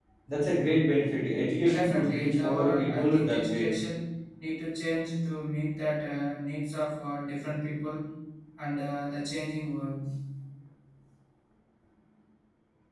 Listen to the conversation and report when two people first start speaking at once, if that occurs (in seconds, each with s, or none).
1.6 s